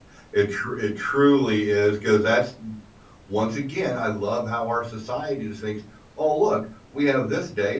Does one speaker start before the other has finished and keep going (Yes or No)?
No